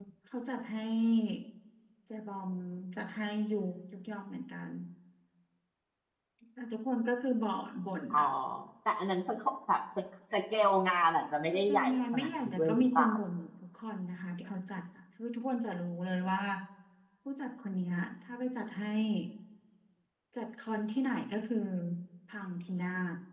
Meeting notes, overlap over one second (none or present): present